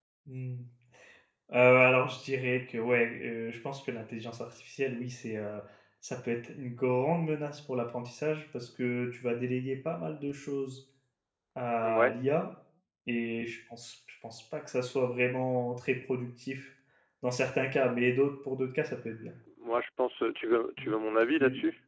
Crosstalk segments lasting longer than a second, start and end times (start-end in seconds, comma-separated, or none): none